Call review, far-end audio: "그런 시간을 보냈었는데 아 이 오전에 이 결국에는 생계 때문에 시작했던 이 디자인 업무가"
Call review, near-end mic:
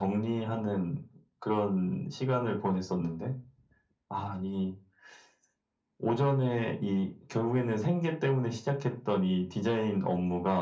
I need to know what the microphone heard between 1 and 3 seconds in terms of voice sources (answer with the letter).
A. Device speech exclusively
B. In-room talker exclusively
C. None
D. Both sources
A